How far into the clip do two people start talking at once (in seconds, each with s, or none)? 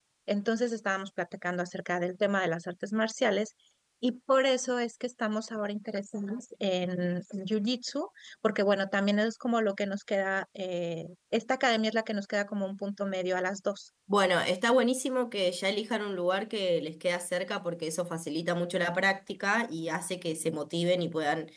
none